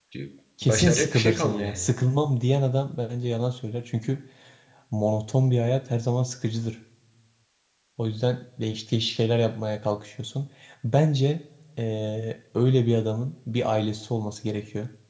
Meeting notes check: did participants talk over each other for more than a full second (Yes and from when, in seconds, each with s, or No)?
Yes, from 0.6 s